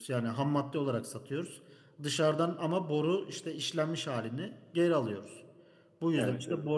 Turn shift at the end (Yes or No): No